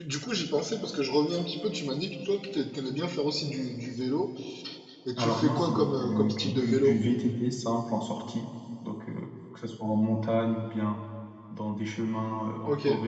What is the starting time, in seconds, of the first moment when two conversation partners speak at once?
5.2 s

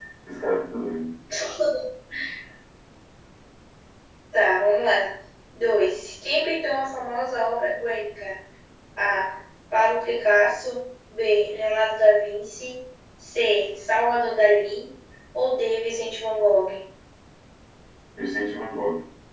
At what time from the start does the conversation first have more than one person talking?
none

